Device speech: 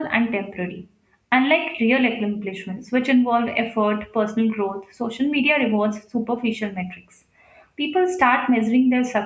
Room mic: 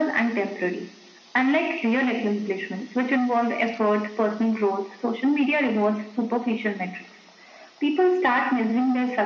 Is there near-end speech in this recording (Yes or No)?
No